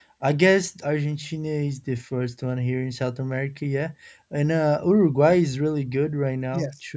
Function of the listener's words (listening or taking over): taking over